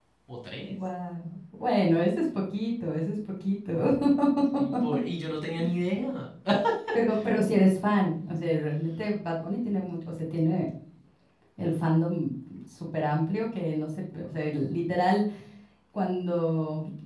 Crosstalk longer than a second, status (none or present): none